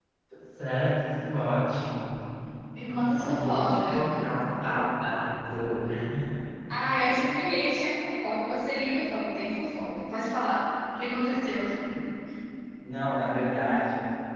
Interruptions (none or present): present